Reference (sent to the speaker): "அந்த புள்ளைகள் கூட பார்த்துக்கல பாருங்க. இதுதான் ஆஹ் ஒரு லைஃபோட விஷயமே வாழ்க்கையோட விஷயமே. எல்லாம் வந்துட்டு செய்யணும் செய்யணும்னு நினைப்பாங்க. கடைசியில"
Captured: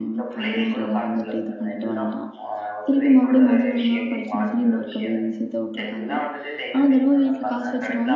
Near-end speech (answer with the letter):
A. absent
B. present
B